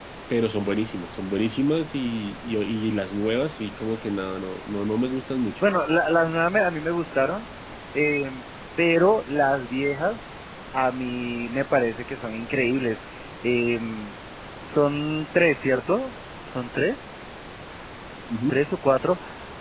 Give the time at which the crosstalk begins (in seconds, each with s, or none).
none